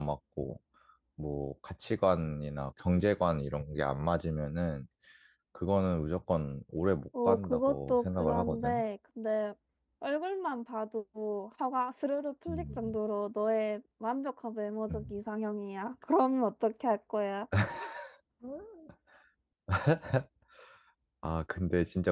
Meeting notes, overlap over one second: present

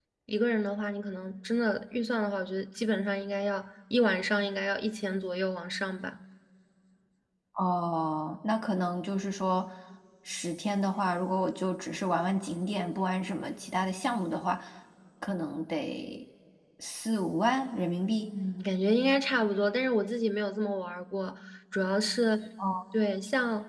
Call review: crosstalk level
none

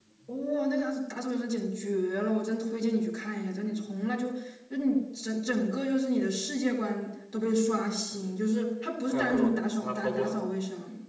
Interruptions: present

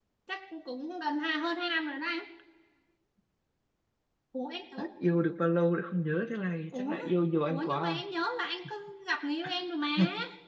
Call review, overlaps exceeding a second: none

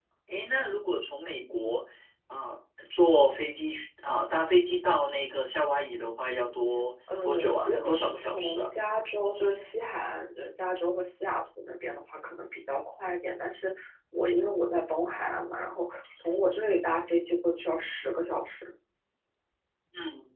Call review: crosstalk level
present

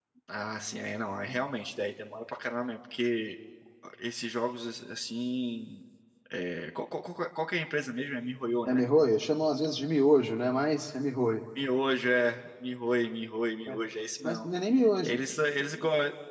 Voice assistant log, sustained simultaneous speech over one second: none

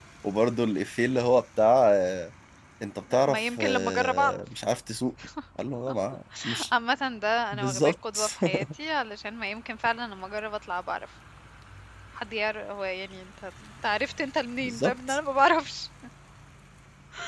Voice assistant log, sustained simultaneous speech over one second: present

